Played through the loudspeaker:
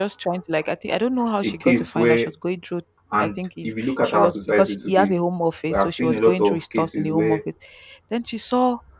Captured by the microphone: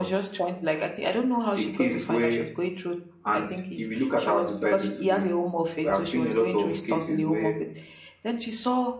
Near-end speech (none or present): none